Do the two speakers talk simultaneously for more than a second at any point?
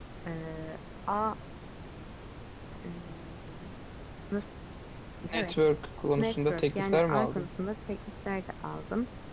Yes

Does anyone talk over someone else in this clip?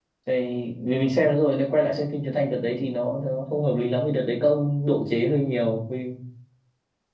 No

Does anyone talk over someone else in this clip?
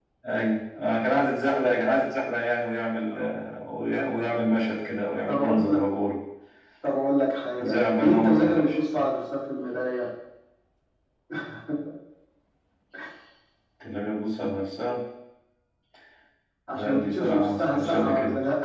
Yes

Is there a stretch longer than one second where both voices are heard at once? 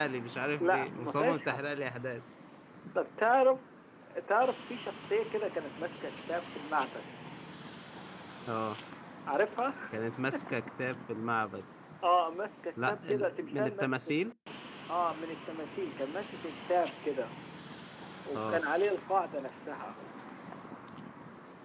Yes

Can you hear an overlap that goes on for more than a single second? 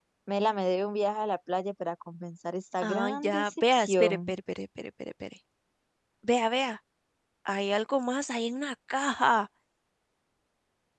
Yes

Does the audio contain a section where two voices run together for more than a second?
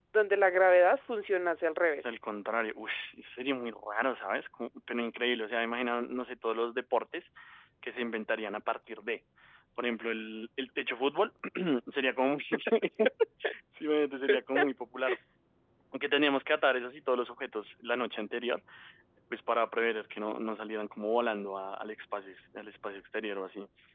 No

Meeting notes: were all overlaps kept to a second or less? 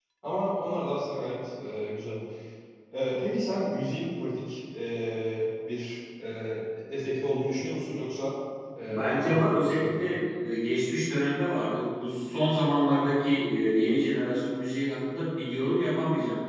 No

